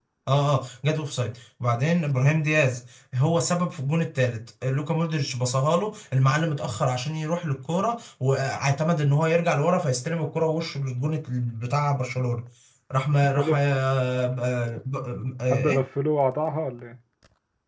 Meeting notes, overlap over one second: none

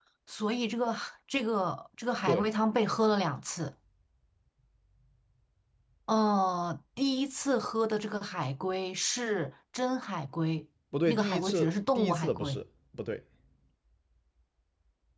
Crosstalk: present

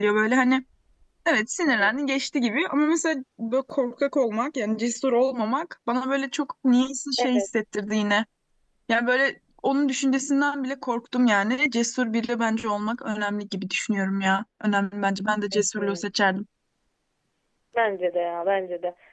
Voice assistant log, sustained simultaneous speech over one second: none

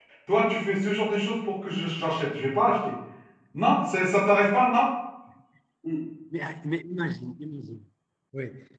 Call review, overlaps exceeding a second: none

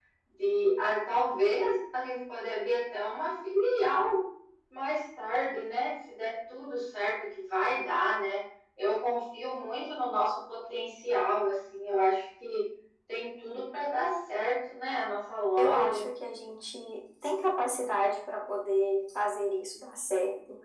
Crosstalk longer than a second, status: none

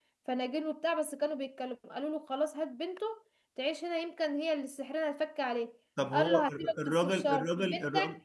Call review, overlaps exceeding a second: present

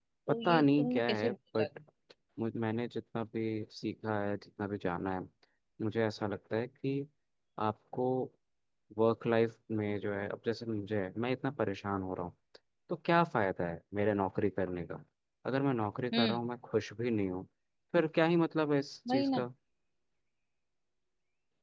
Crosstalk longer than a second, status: present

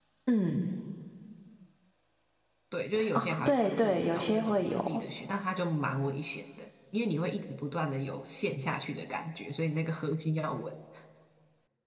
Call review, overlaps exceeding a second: present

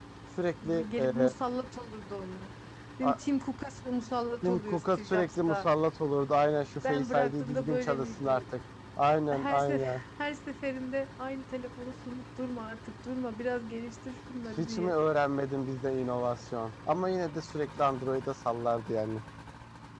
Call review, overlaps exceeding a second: present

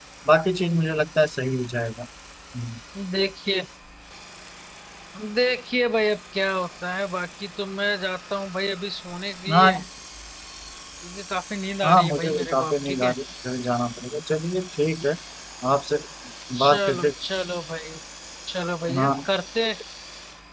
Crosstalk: present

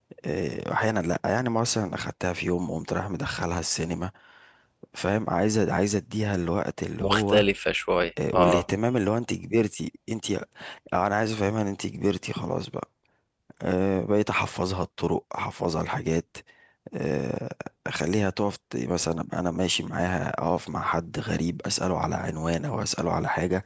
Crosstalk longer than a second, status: none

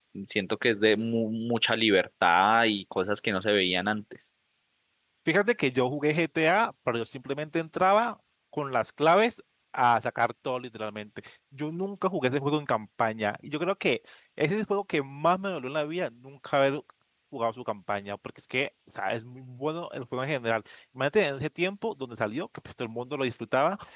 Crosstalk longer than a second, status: none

